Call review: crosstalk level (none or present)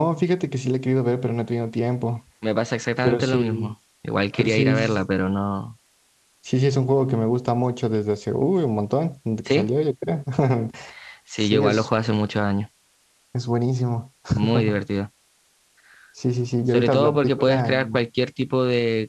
present